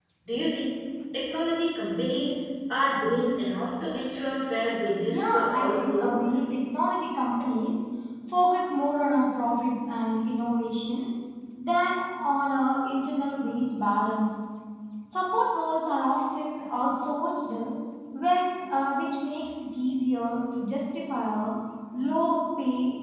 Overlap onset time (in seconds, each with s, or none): 5.1 s